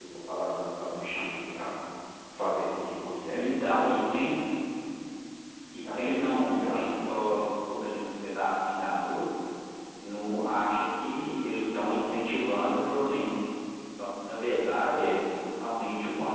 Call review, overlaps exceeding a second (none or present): present